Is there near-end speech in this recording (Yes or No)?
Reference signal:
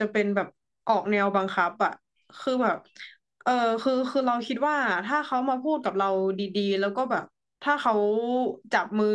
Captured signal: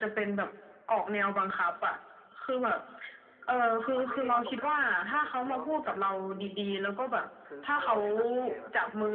Yes